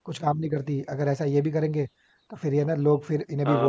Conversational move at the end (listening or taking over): taking over